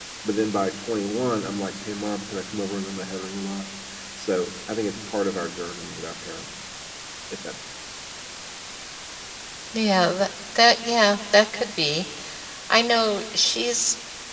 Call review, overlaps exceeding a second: none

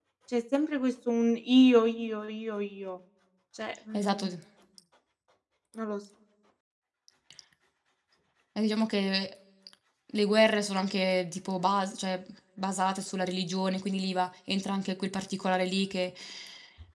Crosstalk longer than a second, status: none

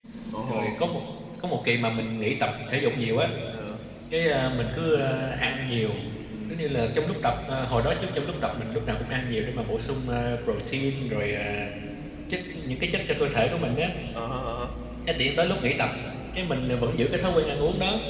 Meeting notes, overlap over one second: none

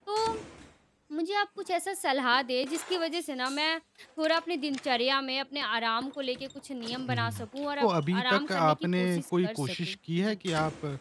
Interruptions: present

